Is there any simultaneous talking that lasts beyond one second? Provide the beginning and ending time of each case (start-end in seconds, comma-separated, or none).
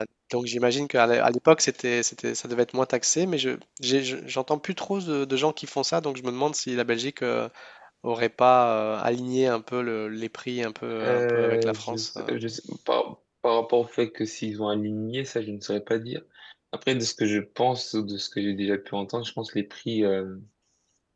11.0-12.3